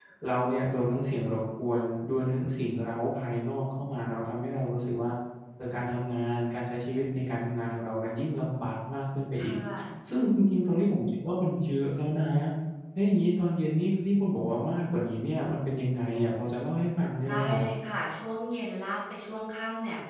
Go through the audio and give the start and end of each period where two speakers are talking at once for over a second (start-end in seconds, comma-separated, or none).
none